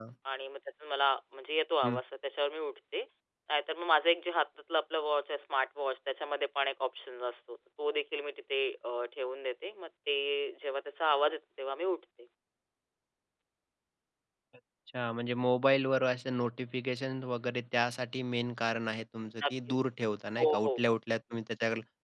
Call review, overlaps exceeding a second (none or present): none